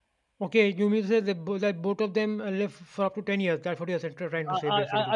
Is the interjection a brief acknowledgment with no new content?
No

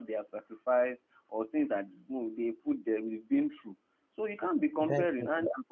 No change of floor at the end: No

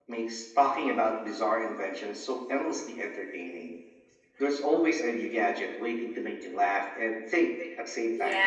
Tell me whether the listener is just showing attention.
No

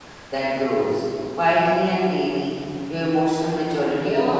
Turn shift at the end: Yes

